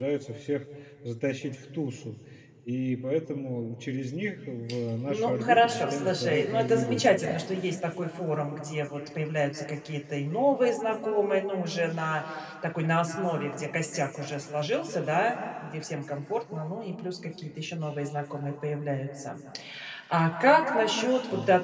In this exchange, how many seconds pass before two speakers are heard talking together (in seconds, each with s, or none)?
5.1 s